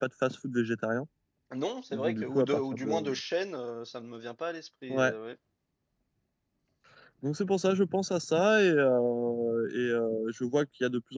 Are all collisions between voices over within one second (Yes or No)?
No